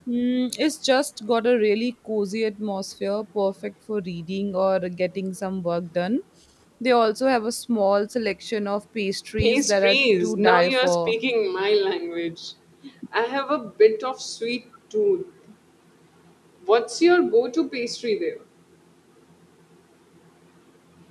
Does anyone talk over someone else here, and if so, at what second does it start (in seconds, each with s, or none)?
9.4 s